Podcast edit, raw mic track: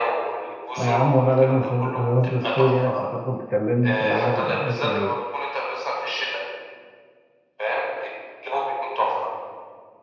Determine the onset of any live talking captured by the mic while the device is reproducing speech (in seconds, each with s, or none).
0.8 s